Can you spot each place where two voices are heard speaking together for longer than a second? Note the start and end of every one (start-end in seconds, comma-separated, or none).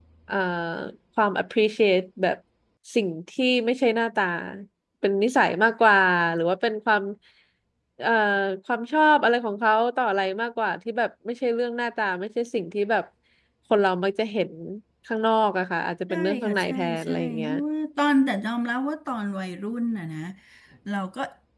16.1-17.5